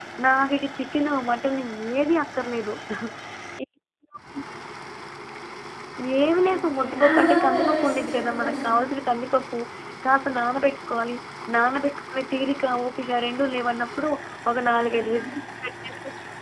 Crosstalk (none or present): present